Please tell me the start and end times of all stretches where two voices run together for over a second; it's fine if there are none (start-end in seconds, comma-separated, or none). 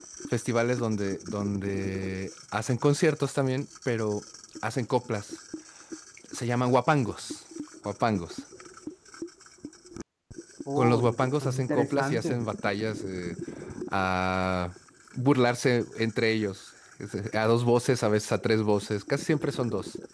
10.8-12.4